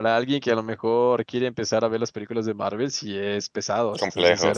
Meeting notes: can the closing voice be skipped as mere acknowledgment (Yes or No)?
No